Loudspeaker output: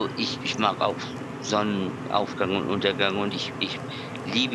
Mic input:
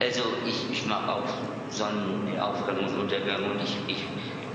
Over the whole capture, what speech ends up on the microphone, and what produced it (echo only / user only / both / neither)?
both